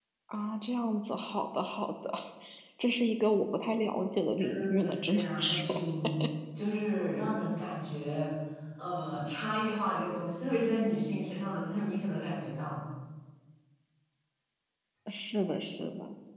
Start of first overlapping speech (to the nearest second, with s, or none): 4 s